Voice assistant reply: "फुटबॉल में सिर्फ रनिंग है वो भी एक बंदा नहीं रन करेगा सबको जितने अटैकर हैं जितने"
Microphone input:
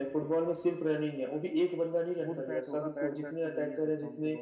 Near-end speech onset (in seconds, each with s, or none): 2.2 s